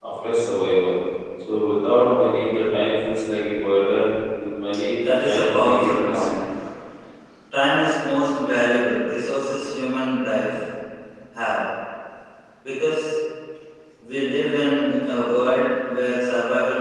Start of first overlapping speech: 4.9 s

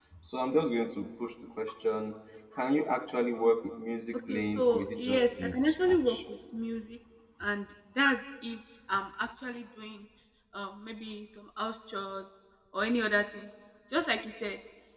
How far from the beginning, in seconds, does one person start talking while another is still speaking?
4.3 s

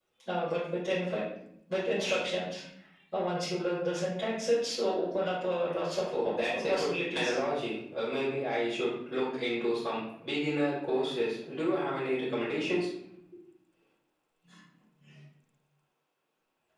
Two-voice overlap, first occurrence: 6.1 s

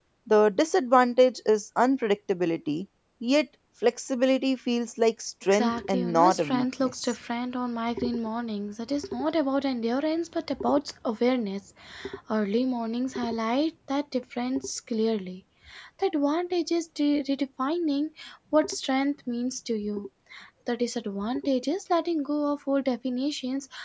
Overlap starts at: 5.4 s

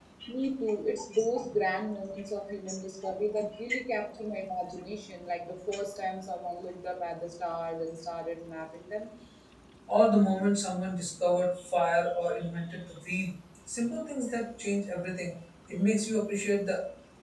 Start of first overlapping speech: none

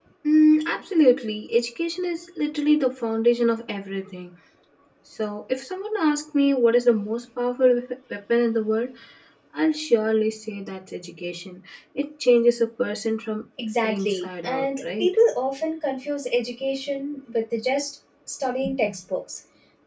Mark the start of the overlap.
13.8 s

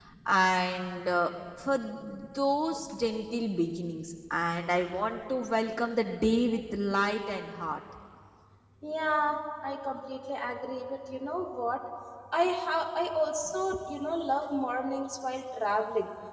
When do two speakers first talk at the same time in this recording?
none

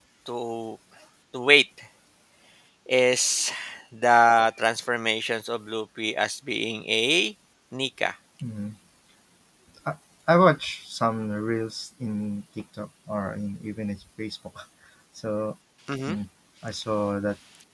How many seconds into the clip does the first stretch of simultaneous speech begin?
none

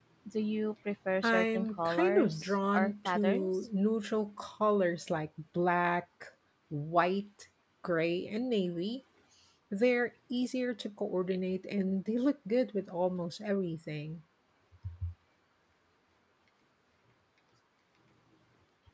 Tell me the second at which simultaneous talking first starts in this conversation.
1.2 s

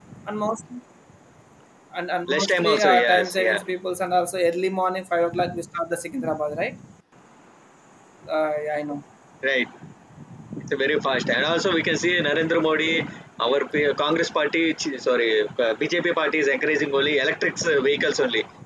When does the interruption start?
2.3 s

